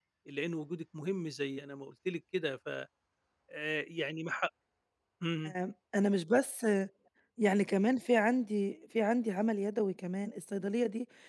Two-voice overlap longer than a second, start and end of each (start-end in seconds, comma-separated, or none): none